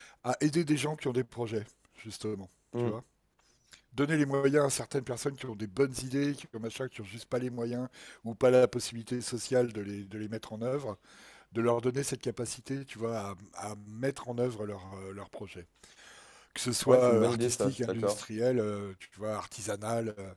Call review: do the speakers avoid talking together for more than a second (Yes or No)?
No